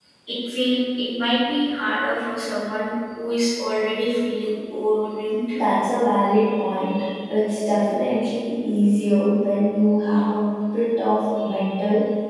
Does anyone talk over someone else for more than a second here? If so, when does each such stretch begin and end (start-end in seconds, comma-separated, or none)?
none